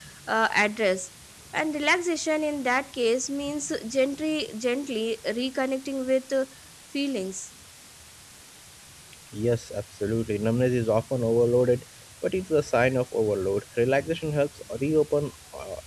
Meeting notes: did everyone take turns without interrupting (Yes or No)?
Yes